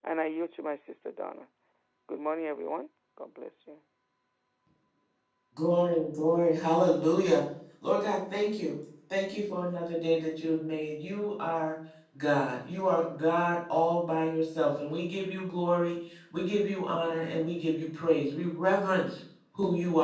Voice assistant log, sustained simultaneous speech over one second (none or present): none